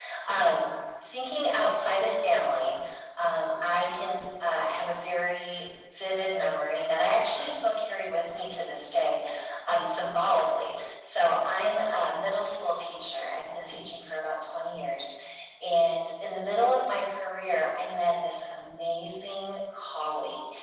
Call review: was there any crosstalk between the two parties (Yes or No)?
No